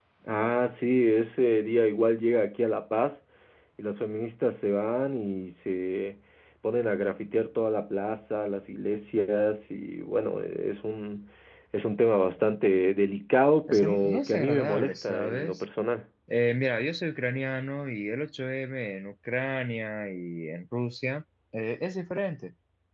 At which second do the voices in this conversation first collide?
14 s

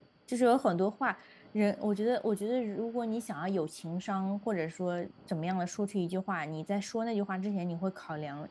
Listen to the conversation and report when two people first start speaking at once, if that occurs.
none

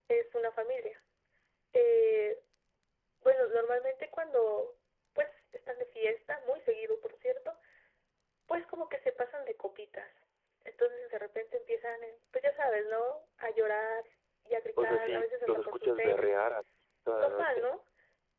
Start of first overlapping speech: 15 s

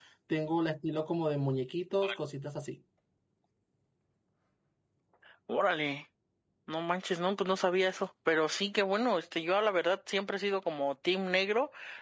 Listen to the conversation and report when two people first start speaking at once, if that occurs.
none

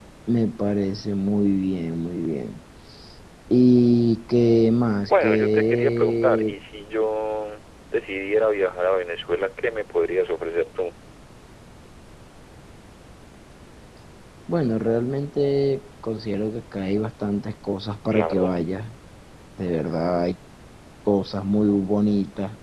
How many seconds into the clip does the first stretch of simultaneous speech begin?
5 s

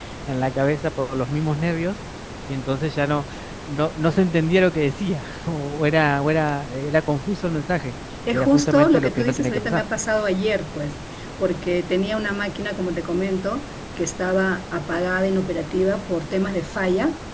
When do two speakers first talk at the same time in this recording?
8 s

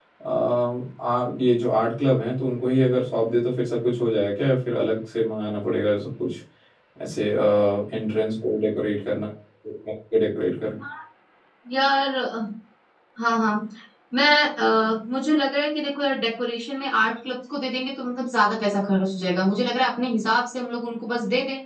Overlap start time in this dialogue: none

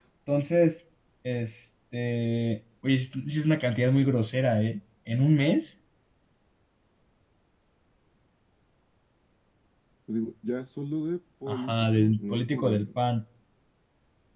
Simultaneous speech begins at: 11 s

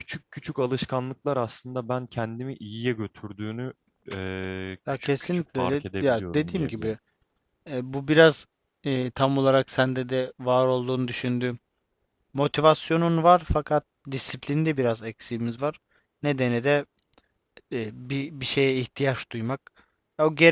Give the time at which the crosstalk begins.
5 s

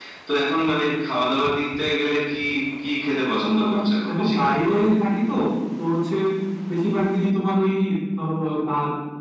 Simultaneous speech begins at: 3 s

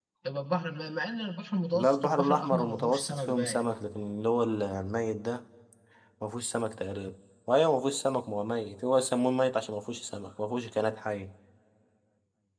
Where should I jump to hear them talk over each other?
2 s

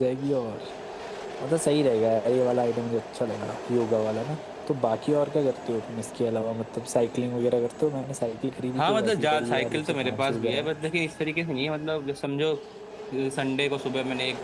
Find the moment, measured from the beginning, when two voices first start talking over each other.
9 s

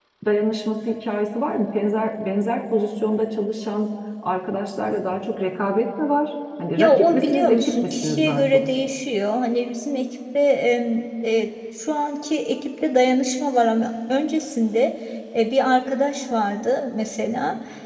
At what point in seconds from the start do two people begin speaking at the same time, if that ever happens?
7 s

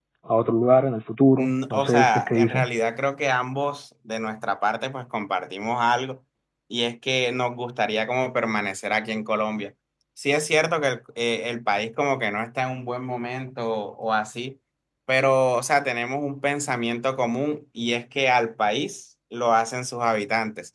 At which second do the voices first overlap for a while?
1 s

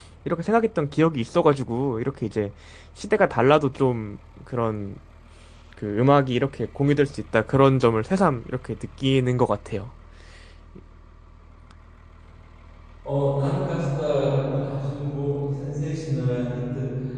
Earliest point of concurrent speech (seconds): none

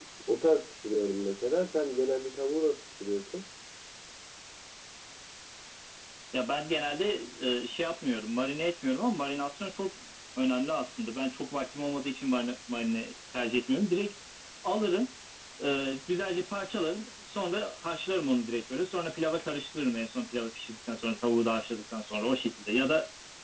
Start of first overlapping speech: none

